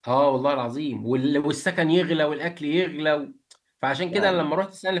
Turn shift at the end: No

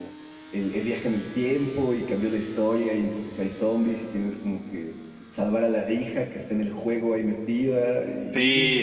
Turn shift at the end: Yes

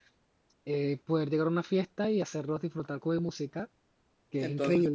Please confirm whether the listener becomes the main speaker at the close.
Yes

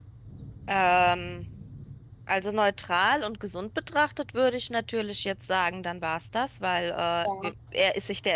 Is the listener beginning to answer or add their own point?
No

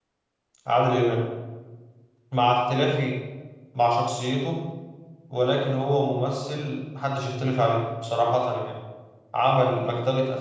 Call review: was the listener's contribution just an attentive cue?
Yes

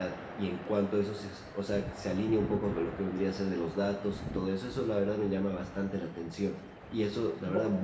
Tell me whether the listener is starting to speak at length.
No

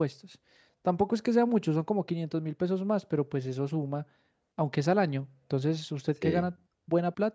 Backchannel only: Yes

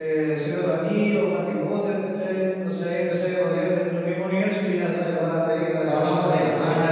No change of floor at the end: No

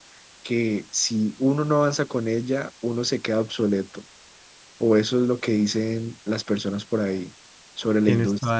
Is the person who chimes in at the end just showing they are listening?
No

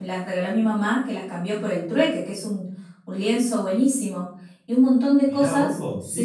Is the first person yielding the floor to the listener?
Yes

